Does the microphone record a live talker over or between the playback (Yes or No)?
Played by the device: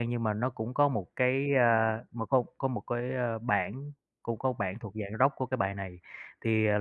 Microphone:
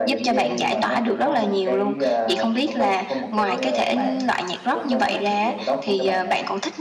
Yes